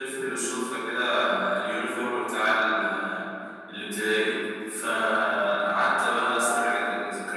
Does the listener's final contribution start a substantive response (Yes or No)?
No